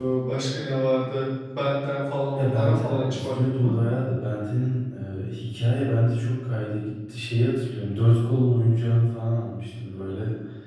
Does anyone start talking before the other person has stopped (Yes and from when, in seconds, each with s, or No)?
Yes, from 2.4 s